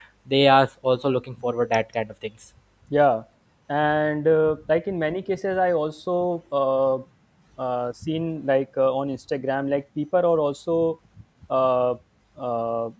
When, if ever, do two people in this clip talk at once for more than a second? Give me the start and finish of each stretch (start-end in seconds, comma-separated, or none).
none